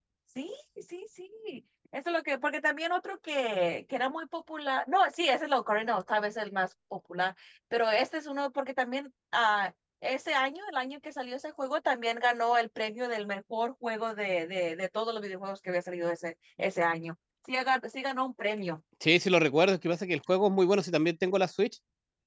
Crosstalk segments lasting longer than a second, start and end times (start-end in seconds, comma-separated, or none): none